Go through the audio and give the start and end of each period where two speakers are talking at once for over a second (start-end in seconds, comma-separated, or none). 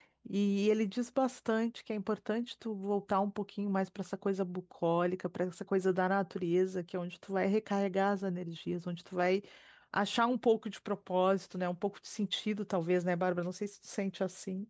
none